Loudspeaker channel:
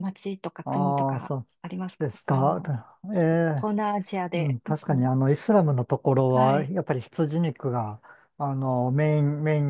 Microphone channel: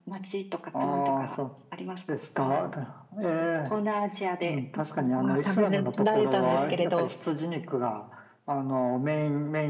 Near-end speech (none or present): present